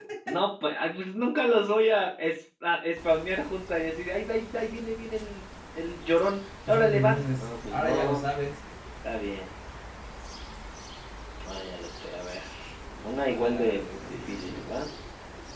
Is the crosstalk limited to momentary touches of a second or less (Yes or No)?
No